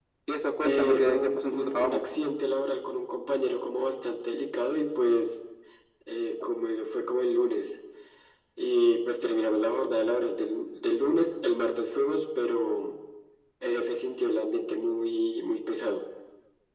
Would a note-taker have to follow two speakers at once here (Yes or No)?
Yes